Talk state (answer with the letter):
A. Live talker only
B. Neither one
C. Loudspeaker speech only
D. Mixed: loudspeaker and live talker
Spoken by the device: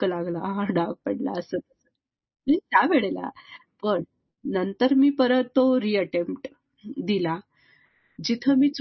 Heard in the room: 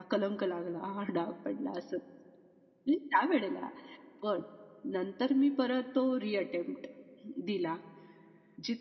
C